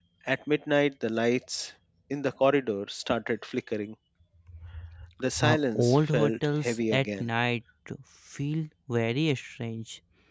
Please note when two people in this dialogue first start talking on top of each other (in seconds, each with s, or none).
5.4 s